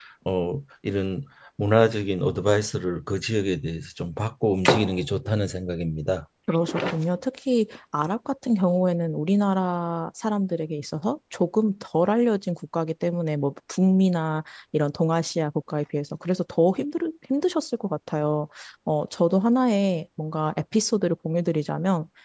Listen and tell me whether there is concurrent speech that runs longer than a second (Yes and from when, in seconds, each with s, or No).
No